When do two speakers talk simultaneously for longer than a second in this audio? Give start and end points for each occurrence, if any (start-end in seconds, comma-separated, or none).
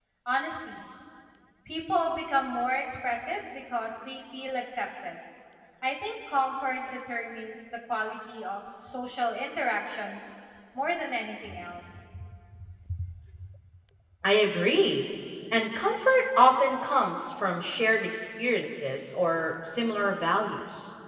none